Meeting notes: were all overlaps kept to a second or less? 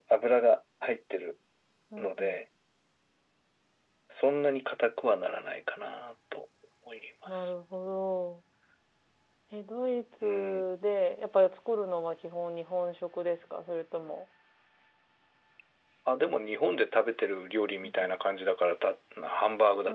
Yes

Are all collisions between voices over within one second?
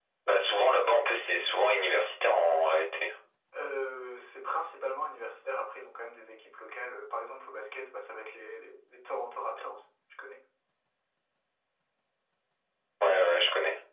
Yes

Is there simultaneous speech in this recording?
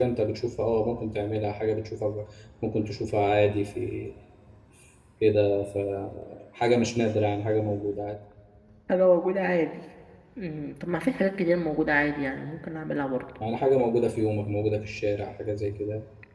No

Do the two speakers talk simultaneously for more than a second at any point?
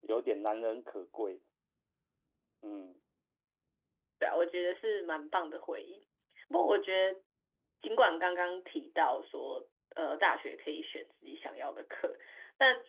No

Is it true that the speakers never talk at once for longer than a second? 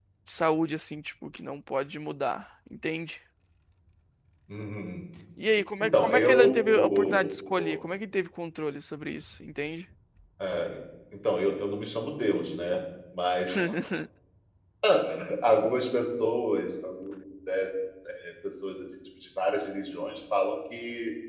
No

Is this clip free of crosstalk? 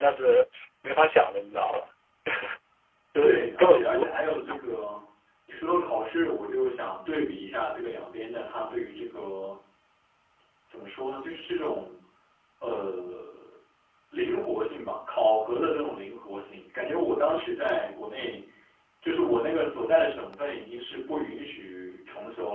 No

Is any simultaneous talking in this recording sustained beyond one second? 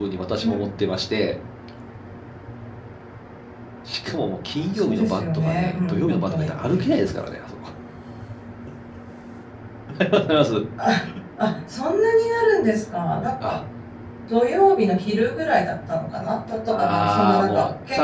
Yes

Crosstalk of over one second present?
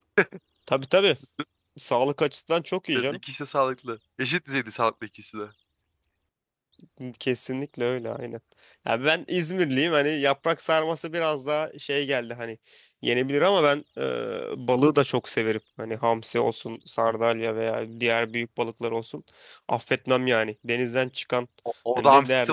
No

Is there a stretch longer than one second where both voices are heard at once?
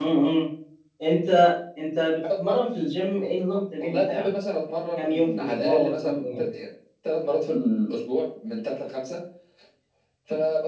Yes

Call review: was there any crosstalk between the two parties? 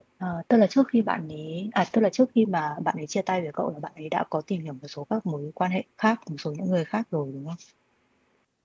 No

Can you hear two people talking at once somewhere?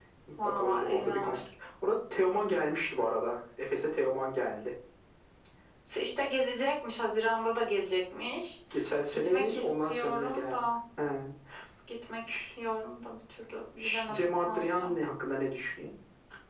Yes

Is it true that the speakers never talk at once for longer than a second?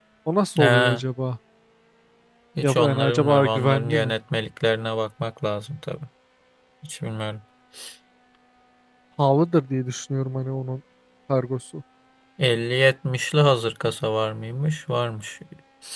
No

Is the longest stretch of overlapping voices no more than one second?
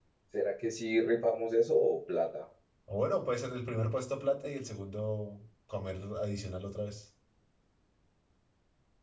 Yes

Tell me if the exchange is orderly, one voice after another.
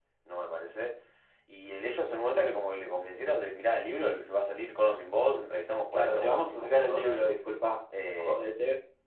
No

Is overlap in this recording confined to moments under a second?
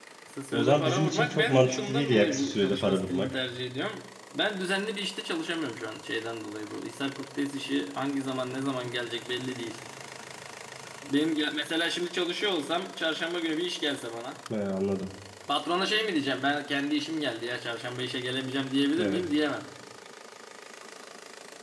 No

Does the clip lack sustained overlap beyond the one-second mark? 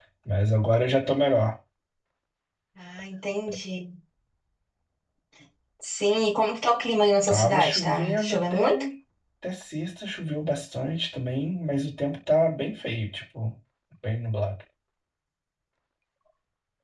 No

